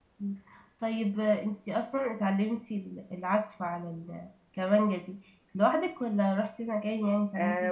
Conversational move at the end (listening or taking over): taking over